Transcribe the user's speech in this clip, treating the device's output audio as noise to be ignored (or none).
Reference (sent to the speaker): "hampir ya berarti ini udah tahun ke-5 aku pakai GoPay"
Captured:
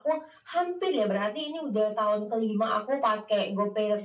none